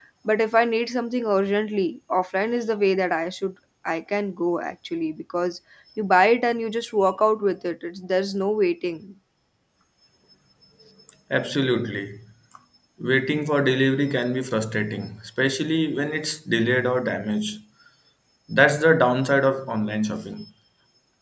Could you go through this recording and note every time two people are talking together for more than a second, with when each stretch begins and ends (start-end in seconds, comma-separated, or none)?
none